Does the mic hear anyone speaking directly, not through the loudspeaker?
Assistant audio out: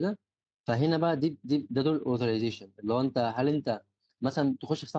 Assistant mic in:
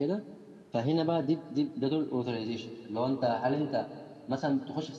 No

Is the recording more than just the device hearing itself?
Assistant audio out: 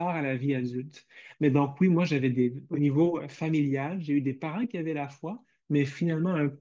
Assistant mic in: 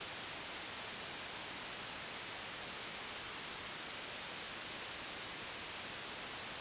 No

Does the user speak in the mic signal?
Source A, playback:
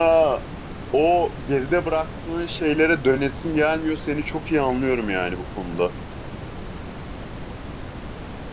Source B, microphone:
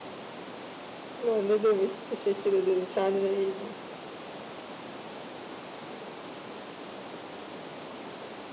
Yes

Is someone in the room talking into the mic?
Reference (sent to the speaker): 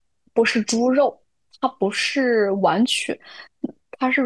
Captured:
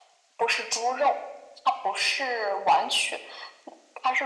No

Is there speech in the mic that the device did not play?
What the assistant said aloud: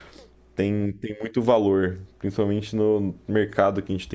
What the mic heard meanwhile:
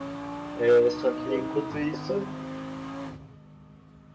Yes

